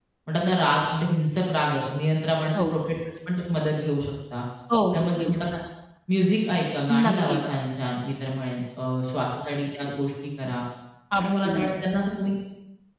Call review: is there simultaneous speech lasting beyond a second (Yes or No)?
No